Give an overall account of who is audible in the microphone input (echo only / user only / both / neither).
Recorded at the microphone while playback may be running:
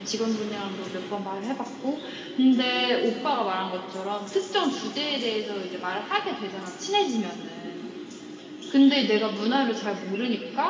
echo only